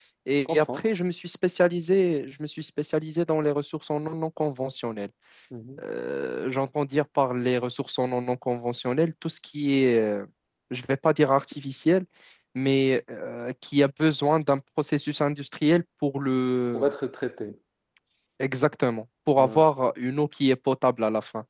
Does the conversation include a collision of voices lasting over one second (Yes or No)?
No